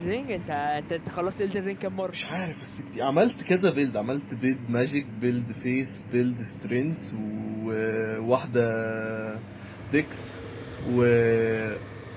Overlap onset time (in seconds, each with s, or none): none